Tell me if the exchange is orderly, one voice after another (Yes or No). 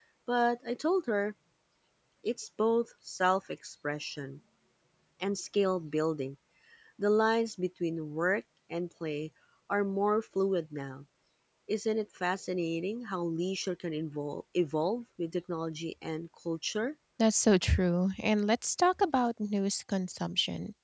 Yes